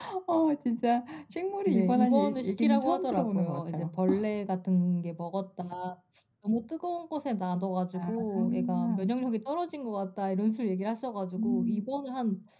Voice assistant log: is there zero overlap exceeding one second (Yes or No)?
No